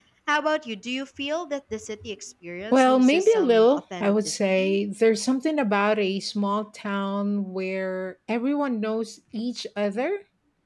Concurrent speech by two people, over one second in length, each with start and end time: 2.7-4.8

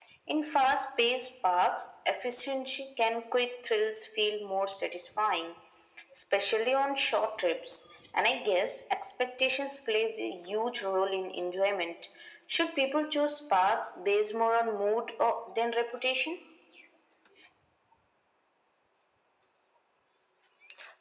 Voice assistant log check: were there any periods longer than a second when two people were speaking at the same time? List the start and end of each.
none

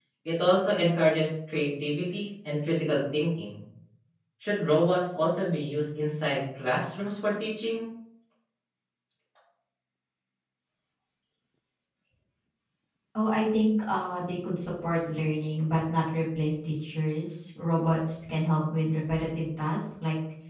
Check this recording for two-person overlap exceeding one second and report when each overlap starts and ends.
none

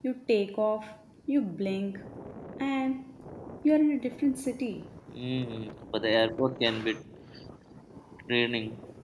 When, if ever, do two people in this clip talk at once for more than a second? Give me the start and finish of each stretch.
none

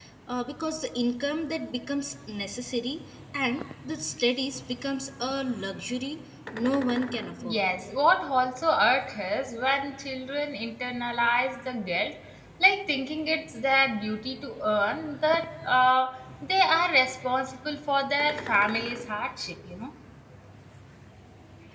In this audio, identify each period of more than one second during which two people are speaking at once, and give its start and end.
none

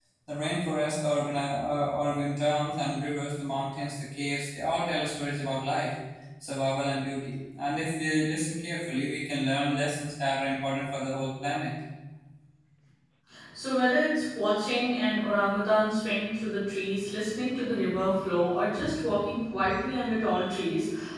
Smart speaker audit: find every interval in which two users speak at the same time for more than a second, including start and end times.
none

